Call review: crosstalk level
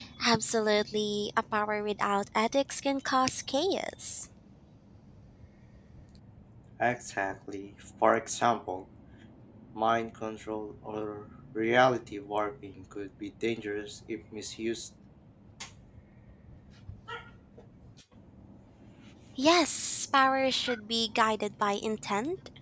none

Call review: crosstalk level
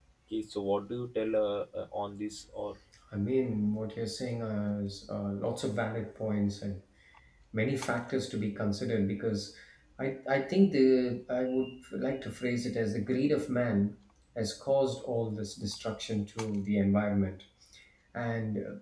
none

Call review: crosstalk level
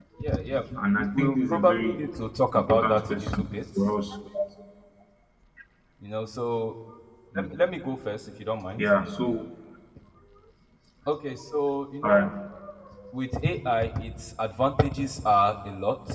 present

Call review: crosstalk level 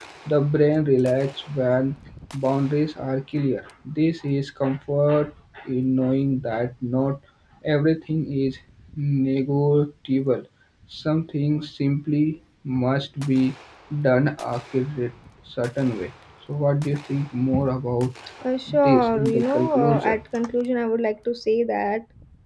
present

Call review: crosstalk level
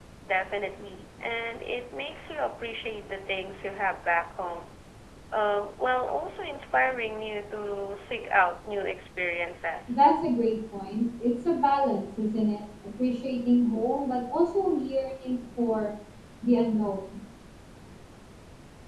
none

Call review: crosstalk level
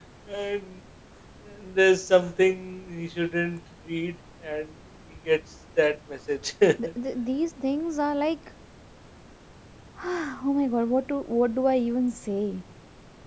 none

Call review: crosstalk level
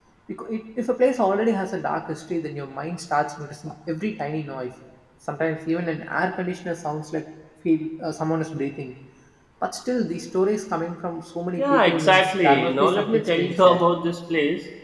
present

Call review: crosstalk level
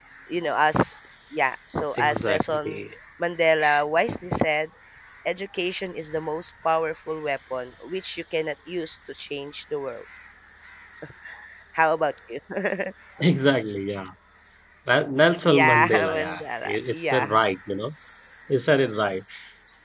present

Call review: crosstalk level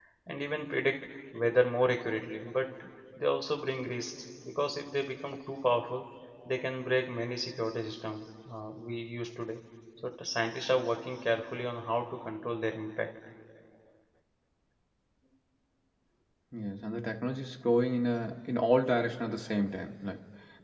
none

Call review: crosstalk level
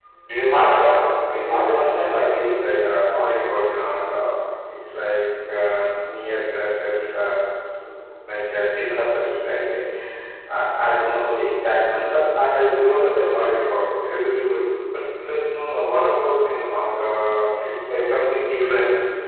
present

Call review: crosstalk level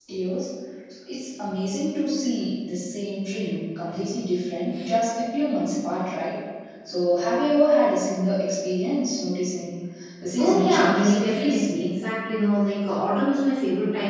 present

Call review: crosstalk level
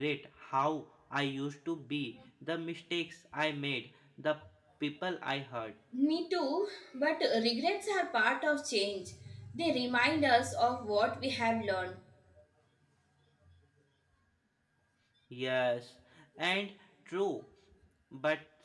none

